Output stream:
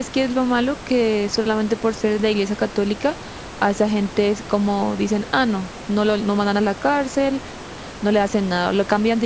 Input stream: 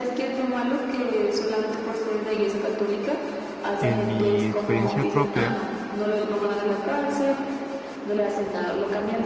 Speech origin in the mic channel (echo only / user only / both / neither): both